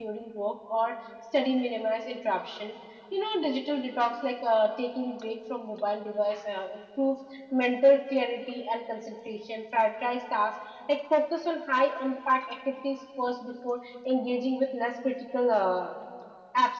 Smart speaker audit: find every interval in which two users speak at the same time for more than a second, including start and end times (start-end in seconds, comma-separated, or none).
none